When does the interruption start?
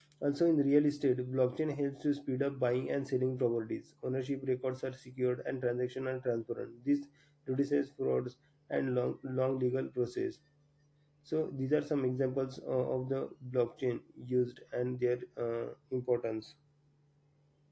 none

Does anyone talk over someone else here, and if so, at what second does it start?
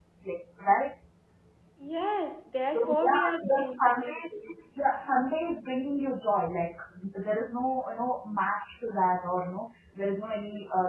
2.7 s

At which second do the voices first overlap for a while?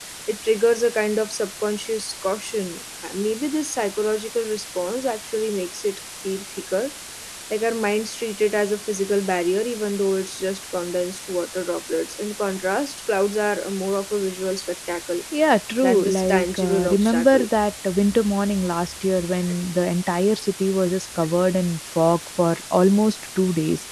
15.8 s

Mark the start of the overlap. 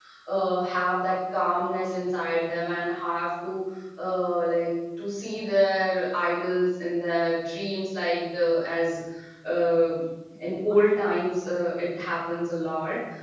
none

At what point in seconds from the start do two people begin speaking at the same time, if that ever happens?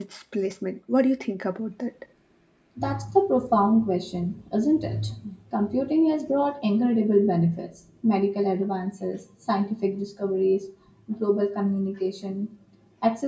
none

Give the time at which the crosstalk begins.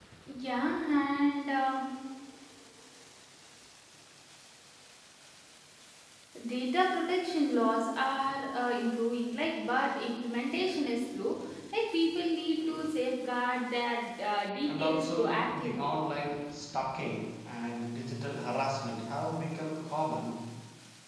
14.6 s

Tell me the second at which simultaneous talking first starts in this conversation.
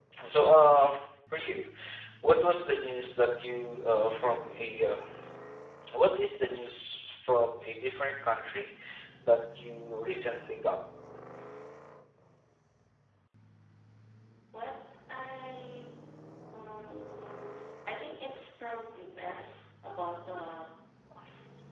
none

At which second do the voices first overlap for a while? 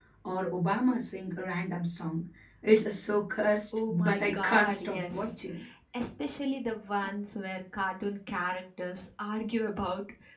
3.7 s

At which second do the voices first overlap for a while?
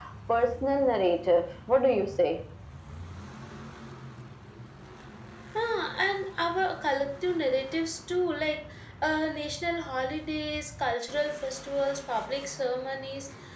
none

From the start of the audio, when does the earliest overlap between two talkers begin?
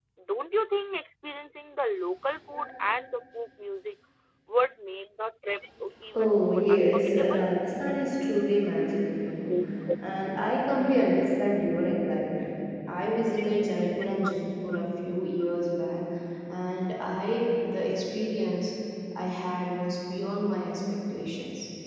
6.2 s

